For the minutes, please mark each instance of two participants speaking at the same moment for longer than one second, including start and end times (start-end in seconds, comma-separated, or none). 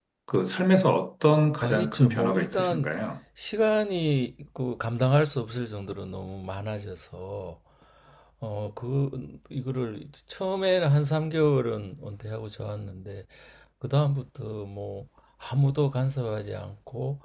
1.6-2.9